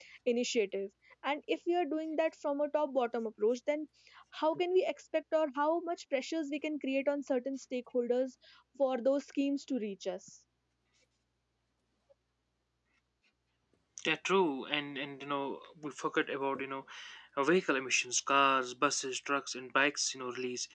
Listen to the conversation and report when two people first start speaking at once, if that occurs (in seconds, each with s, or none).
none